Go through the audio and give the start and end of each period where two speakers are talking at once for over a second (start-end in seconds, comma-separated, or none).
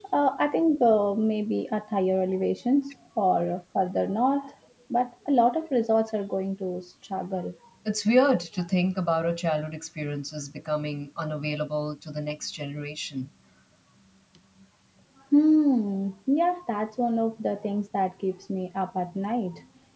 none